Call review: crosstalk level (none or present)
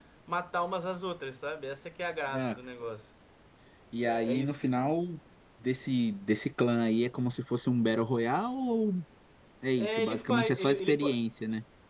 present